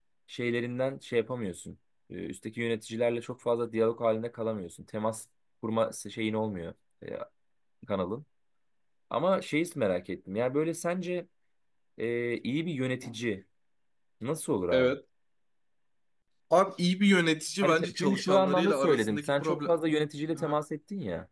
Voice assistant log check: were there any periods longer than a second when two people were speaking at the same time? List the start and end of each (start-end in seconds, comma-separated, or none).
17.6-19.8